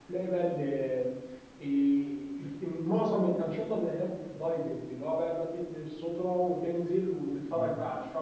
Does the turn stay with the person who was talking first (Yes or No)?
Yes